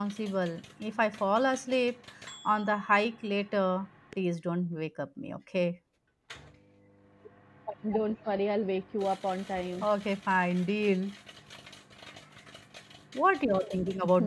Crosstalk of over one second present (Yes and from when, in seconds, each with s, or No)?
No